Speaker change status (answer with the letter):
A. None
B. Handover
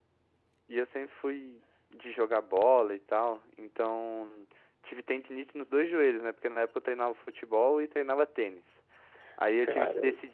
A